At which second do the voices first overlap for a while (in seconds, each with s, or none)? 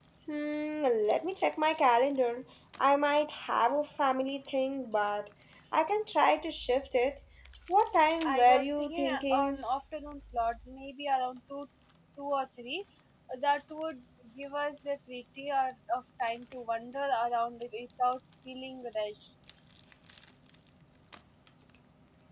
8.2 s